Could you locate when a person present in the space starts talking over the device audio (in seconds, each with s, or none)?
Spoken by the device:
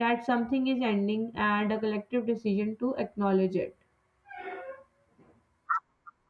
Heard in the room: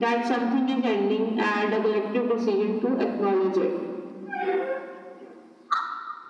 none